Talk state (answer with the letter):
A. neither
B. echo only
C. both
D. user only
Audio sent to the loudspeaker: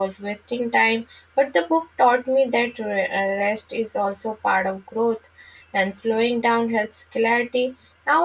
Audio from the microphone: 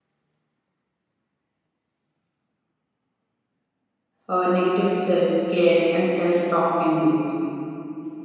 D